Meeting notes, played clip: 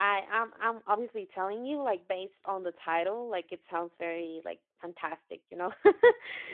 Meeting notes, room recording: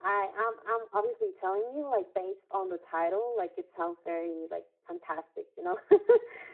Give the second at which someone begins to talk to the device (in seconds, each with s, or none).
none